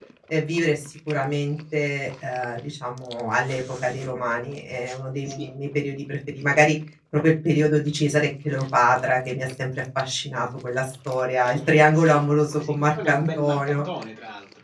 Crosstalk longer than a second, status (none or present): present